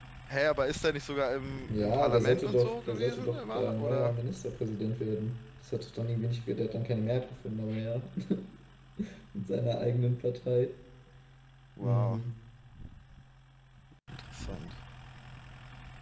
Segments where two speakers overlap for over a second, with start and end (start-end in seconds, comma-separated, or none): 1.7-4.2